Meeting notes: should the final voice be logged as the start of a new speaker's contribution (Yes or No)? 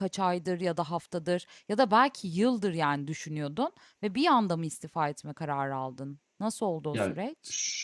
Yes